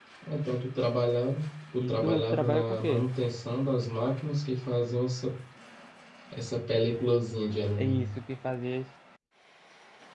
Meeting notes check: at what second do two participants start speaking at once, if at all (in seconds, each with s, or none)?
1.8 s